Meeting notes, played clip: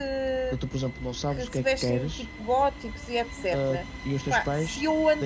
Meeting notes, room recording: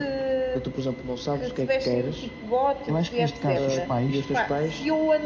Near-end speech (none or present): present